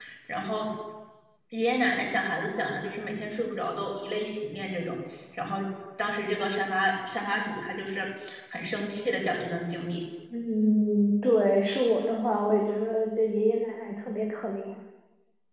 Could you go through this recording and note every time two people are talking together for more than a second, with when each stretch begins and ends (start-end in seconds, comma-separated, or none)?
none